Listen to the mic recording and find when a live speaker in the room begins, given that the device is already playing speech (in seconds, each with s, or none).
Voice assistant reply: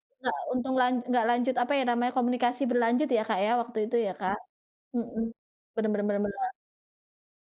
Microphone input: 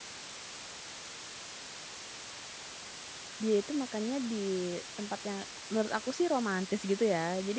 3.4 s